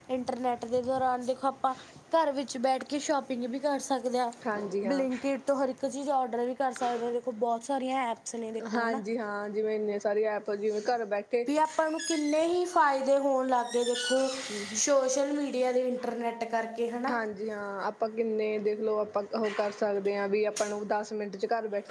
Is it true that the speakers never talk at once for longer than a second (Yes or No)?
Yes